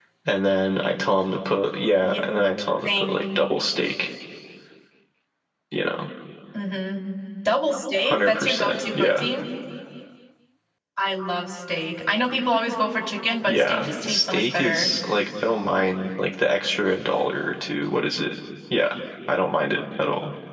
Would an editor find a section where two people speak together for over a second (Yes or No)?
Yes